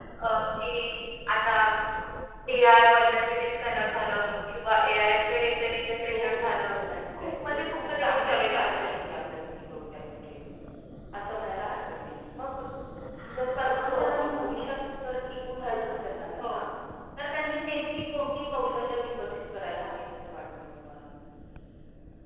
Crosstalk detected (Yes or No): Yes